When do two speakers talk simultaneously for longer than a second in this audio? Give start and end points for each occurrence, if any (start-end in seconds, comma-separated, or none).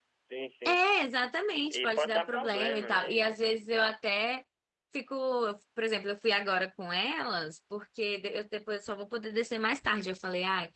1.7-3.2